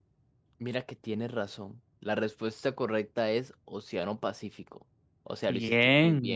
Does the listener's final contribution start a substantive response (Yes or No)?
Yes